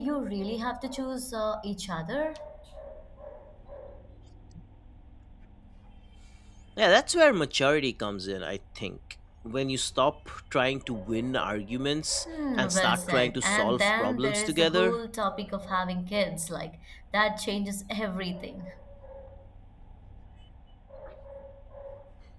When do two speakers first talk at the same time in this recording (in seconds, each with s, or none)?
12.6 s